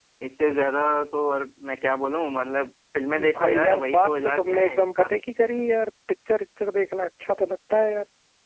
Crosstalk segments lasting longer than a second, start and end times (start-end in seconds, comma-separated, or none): 3.4-5.1